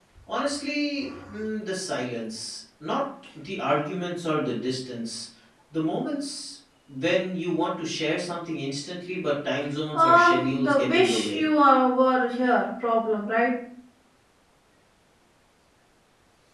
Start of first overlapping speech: 10 s

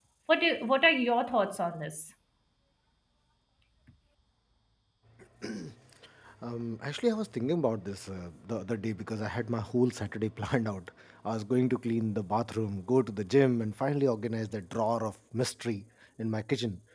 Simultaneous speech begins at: none

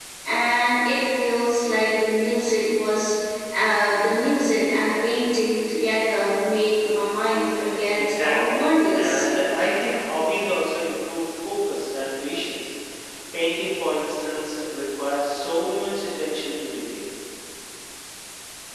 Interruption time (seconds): 8 s

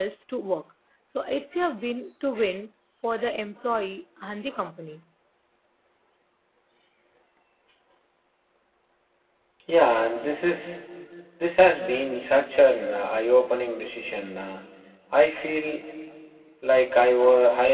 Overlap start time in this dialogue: none

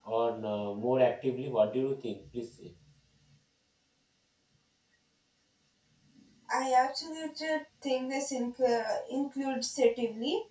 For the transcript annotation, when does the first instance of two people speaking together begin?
none

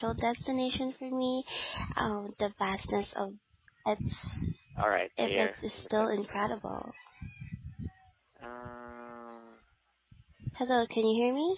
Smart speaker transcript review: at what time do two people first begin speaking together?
5 s

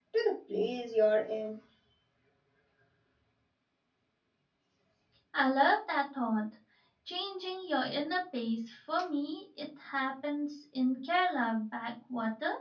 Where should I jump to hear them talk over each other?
none

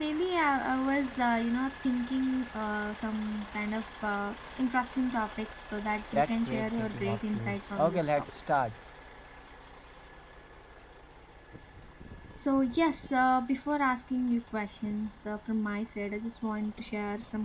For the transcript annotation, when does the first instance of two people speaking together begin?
6 s

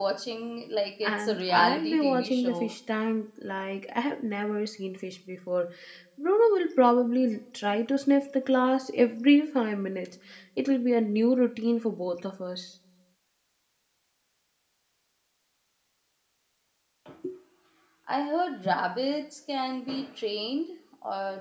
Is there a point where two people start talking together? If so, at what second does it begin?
1 s

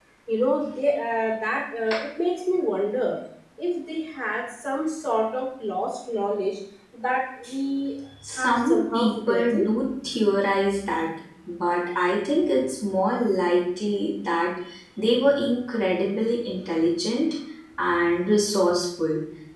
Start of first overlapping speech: 8 s

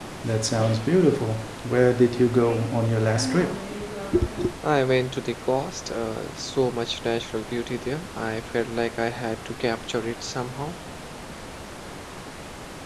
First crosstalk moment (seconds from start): none

